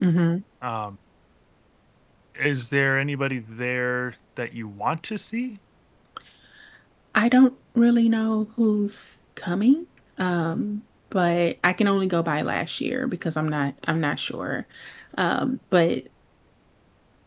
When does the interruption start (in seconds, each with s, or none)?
none